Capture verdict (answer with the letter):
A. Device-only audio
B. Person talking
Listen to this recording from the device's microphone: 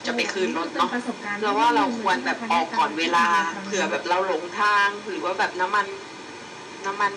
B